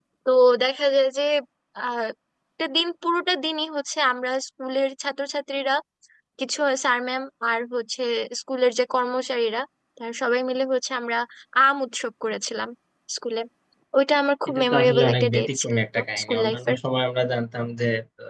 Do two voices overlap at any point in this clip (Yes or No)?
Yes